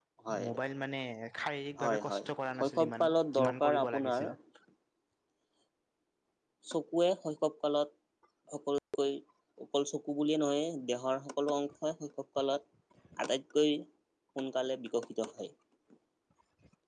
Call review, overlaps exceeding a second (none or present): present